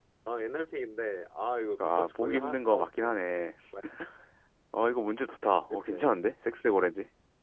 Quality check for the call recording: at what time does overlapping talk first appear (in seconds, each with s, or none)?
1.8 s